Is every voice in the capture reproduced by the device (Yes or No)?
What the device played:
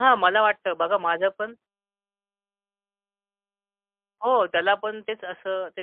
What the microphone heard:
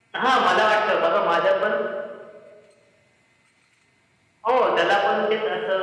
Yes